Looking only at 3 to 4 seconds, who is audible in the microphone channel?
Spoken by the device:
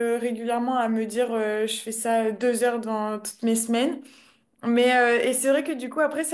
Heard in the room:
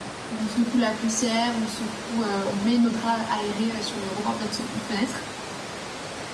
user only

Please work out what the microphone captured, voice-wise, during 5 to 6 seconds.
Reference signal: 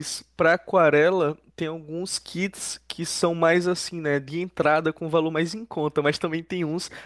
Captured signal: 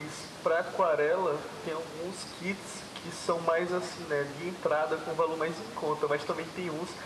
echo only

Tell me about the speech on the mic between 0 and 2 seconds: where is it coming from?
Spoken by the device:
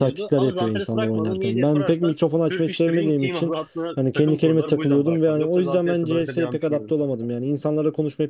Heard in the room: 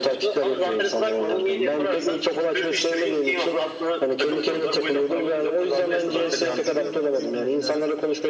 echo only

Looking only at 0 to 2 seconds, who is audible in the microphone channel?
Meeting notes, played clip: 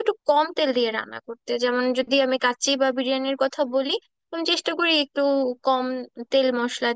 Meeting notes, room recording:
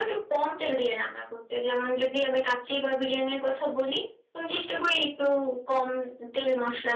echo only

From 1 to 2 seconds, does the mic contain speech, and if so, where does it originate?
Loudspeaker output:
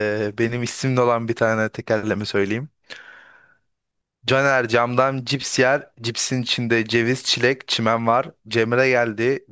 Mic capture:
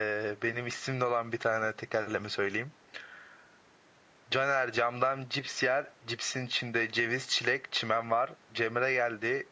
echo only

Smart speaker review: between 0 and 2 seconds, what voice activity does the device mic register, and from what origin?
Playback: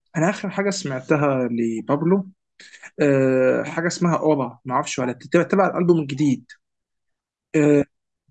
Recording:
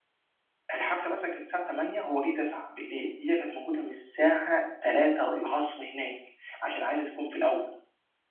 user only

